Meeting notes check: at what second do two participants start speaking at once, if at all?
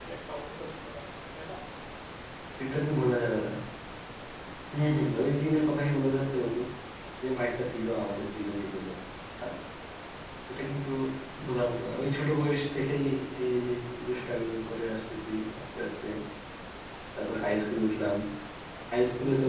none

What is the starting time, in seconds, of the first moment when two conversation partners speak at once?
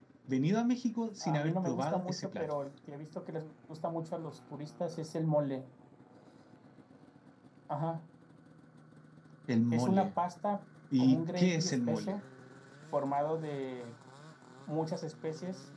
1 s

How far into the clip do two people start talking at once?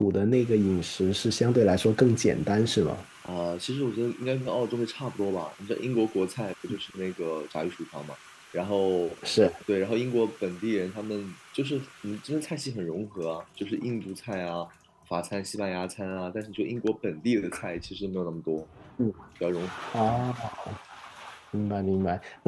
none

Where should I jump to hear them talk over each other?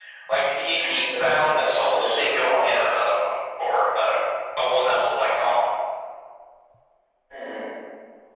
1 s

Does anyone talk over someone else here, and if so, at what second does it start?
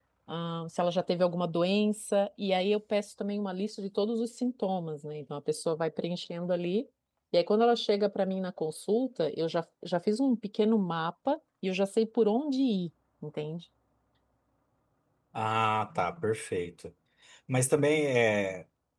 none

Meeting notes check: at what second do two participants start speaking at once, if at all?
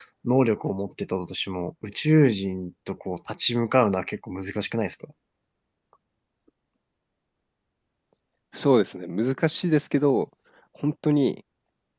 none

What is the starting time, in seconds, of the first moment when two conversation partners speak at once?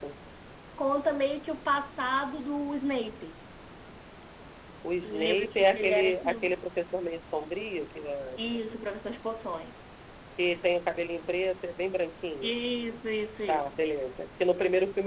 5 s

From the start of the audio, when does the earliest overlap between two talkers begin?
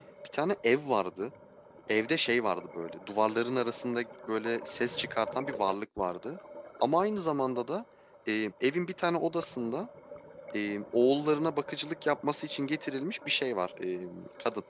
none

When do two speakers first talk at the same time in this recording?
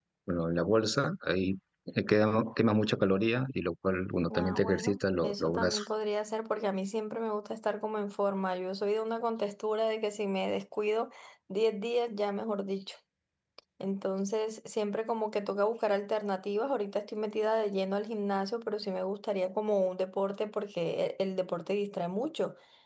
4 s

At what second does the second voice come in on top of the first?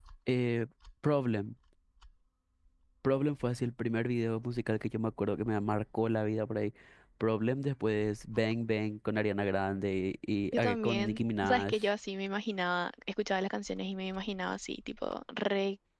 11 s

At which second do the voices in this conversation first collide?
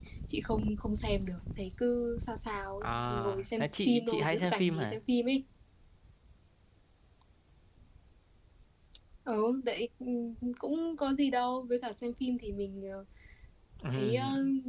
3 s

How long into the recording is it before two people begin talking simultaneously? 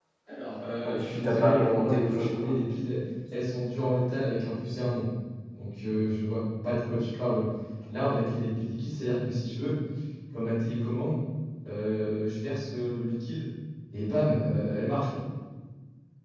1 s

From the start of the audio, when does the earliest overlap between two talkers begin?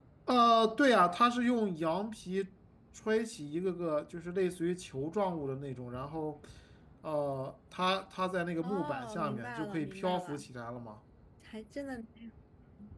9 s

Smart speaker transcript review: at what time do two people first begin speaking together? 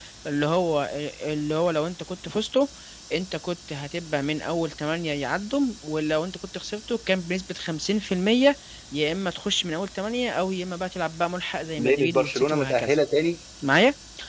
12 s

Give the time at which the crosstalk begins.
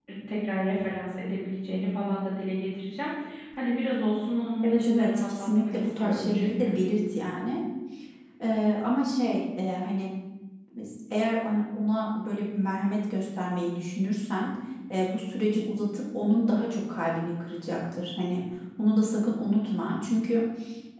5 s

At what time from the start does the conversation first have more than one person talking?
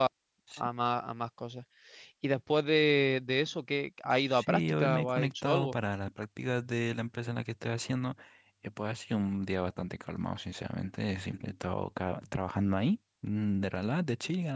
4 s

